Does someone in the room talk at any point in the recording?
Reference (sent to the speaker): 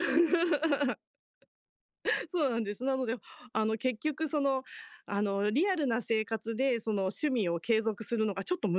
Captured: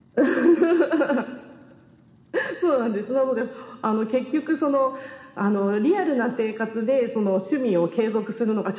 No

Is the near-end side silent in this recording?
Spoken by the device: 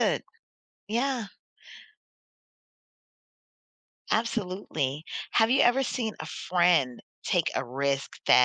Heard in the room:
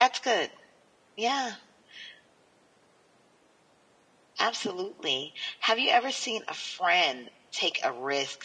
Yes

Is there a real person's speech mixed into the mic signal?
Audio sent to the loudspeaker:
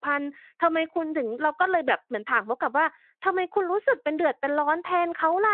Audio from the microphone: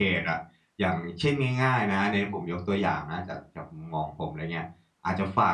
Yes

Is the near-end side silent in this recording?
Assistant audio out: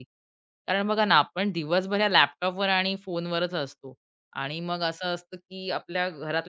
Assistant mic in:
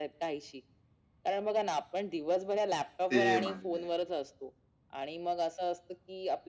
No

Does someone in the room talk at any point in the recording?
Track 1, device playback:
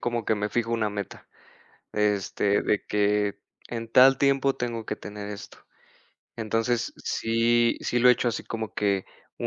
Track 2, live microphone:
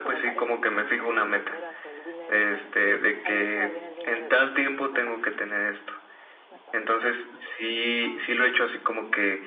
Yes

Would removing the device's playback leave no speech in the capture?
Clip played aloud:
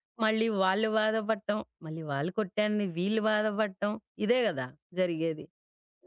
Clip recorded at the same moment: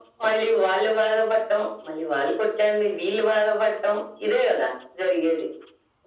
Yes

